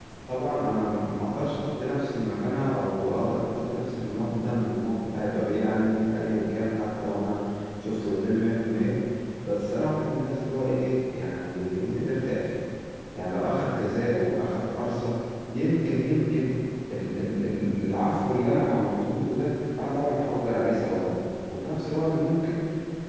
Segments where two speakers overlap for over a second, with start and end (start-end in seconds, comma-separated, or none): none